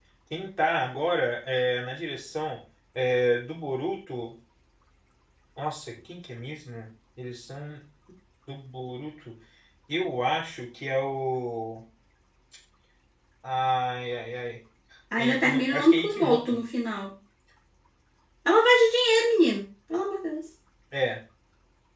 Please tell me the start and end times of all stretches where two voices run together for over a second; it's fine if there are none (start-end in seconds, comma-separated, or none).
15.2-16.6